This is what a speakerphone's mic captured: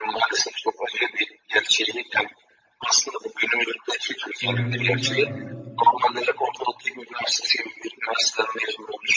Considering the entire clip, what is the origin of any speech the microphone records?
both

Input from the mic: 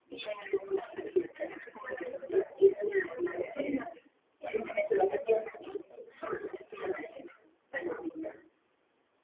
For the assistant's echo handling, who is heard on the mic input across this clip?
echo only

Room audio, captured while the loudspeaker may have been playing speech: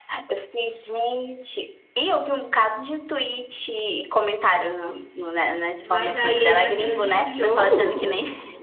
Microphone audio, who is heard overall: both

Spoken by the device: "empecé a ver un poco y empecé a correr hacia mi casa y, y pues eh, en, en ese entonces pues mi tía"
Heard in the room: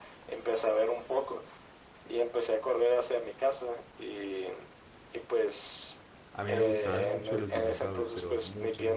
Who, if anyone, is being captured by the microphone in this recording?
both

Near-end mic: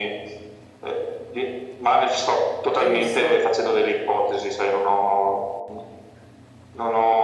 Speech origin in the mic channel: both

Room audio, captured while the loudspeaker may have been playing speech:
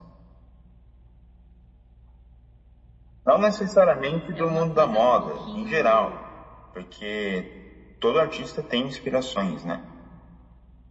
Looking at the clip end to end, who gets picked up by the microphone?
both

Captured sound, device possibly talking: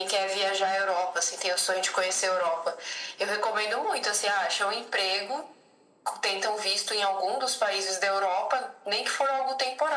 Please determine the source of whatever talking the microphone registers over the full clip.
echo only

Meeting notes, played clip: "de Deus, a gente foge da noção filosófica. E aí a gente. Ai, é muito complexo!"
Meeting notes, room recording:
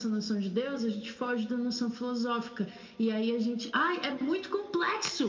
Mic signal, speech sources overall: echo only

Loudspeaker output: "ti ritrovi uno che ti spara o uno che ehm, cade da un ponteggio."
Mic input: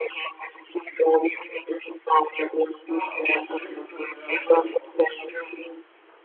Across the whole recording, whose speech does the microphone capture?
both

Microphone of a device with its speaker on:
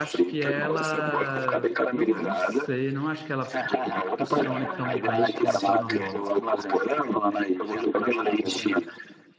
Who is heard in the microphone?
both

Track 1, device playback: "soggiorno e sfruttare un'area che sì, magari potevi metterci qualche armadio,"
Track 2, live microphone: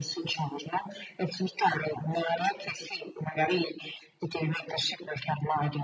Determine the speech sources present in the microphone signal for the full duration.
echo only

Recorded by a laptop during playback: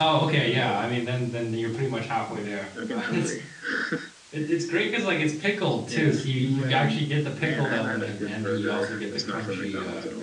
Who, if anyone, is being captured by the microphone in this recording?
both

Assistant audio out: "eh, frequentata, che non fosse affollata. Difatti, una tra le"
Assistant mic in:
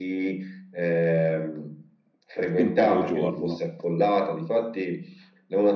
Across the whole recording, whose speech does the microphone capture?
both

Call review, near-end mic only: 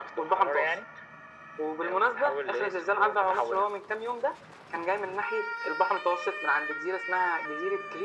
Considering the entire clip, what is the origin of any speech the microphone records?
echo only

